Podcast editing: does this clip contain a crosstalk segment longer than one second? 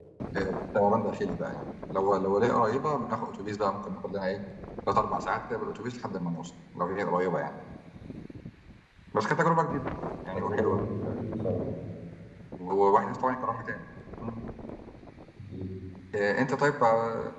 No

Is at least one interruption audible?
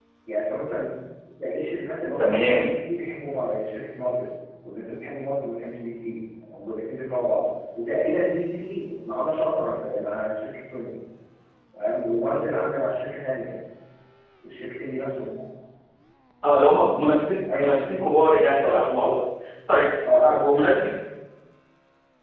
Yes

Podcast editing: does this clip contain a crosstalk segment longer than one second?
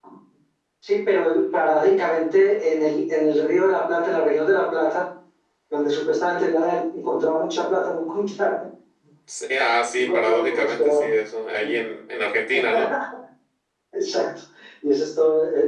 Yes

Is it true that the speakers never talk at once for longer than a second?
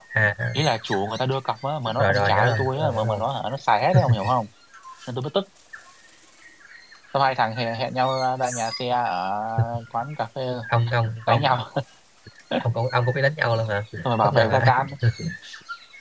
No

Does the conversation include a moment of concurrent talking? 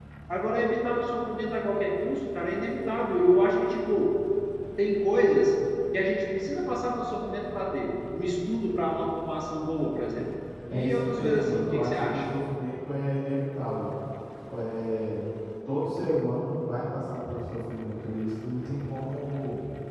Yes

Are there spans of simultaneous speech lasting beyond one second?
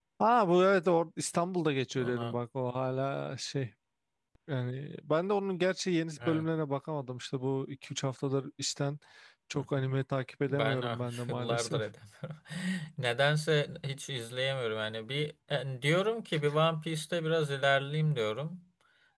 Yes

